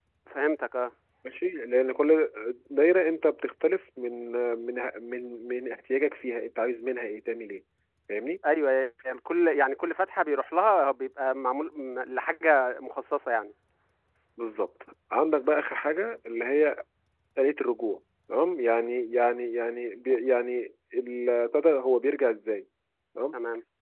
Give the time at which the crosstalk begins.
none

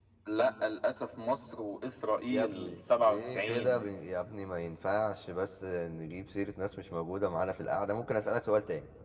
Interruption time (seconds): 2 s

